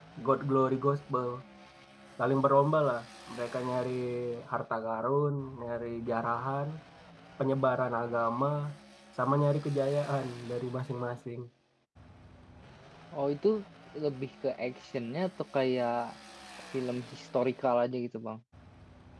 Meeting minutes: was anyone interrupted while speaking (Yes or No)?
No